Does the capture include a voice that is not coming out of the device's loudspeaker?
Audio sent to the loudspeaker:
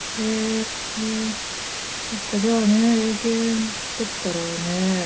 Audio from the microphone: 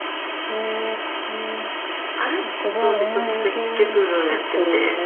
Yes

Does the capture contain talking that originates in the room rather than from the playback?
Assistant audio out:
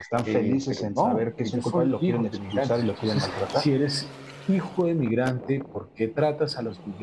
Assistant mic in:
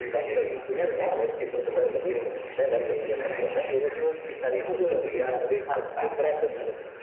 Yes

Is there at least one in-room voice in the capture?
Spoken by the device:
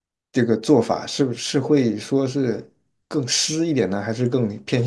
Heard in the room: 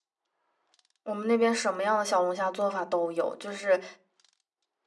Yes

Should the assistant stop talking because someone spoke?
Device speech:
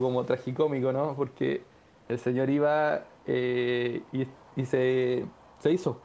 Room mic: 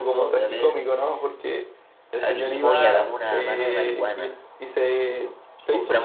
Yes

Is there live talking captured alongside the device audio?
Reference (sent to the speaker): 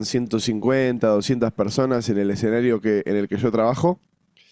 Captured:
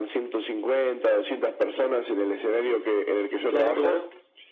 Yes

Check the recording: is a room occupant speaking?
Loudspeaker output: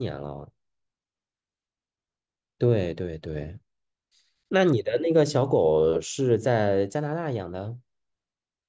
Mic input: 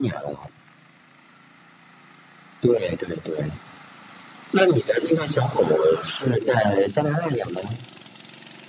No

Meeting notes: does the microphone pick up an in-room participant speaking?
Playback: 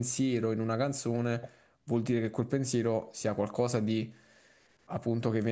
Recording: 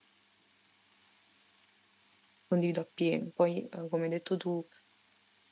Yes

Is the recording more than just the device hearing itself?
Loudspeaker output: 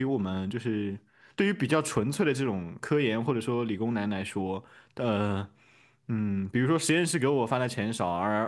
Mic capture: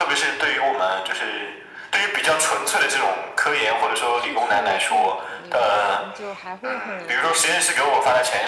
Yes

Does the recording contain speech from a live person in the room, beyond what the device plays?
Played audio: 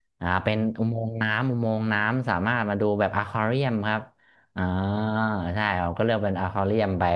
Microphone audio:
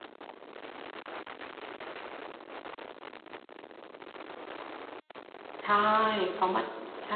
Yes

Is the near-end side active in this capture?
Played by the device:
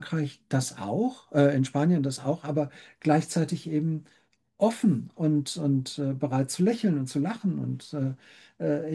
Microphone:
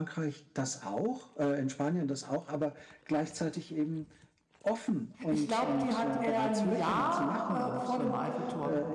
Yes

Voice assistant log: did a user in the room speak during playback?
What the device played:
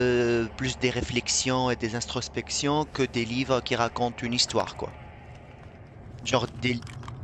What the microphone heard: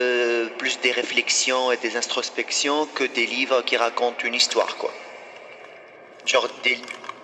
No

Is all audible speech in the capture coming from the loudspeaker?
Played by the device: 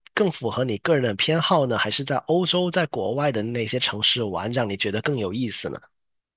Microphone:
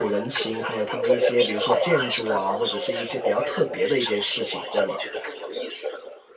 No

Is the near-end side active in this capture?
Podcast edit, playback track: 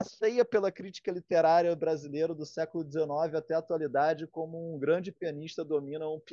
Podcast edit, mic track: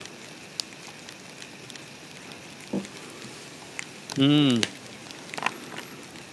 Yes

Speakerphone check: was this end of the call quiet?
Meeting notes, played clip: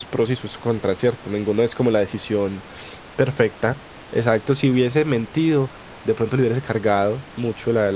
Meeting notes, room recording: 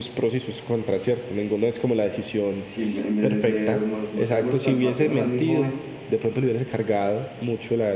No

